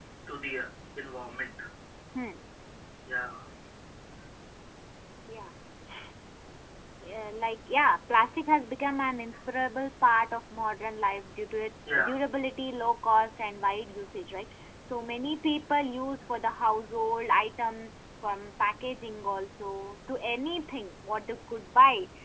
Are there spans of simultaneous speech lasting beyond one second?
No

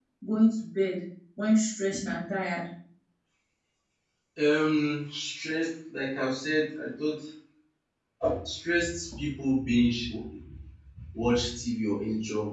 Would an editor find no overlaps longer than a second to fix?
Yes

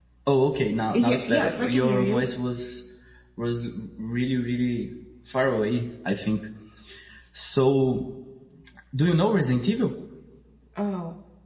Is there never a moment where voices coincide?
No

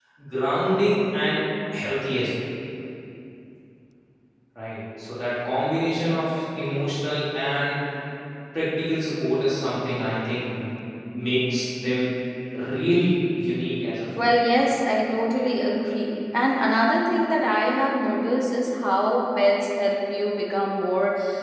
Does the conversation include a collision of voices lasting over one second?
No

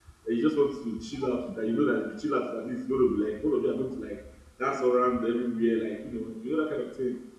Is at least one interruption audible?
No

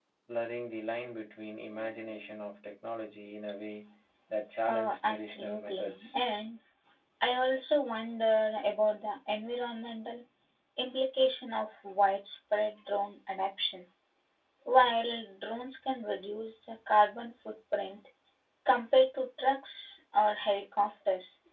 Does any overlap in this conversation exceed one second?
Yes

